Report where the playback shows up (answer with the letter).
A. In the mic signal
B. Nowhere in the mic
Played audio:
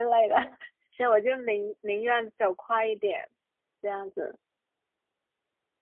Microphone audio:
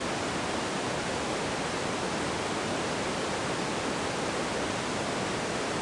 B